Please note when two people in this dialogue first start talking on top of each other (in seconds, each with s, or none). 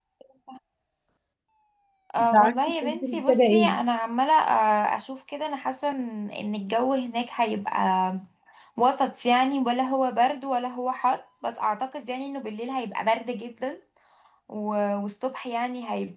2.2 s